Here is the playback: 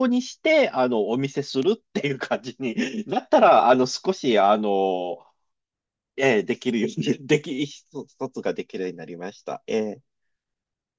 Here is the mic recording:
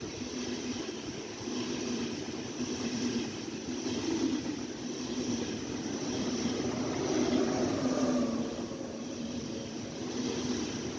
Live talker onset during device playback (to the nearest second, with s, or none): none